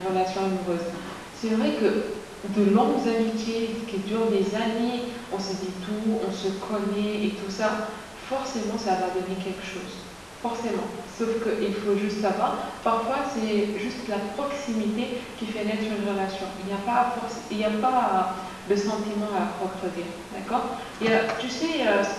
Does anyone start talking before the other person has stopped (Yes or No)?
No